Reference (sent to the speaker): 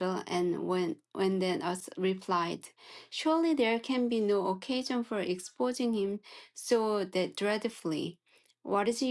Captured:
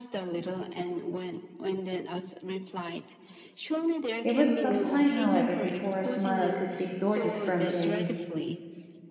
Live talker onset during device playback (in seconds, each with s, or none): 4.2 s